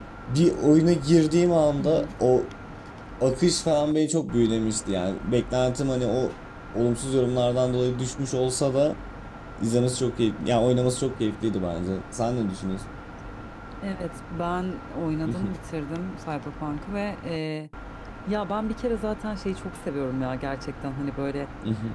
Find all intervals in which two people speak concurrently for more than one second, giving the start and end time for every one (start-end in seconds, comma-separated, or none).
none